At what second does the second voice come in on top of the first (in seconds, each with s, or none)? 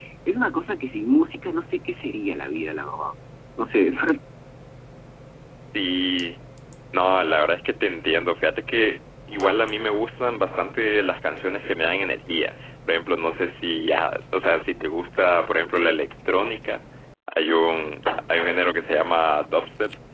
none